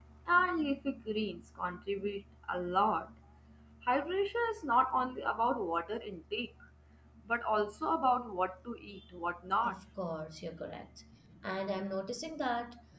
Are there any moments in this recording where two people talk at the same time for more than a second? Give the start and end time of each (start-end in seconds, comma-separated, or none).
none